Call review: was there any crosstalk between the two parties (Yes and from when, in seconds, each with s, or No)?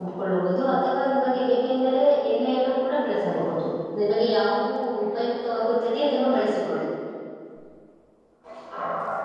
No